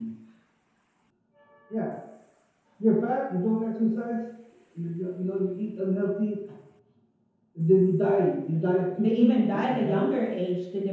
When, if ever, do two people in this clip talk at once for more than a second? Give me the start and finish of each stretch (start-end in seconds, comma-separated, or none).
9.0-10.3